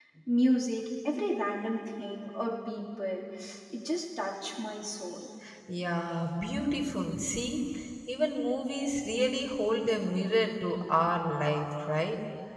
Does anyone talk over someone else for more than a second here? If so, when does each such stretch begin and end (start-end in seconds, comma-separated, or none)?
none